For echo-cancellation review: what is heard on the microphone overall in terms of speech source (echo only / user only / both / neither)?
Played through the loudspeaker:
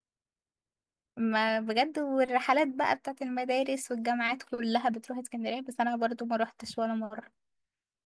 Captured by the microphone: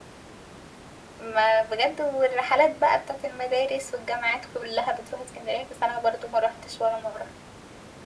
echo only